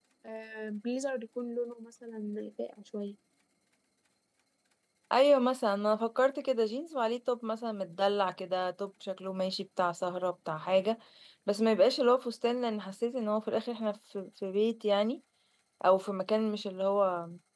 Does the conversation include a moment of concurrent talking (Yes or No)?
No